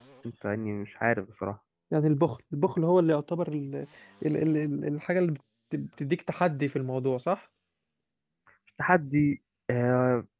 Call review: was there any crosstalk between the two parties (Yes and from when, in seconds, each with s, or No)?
No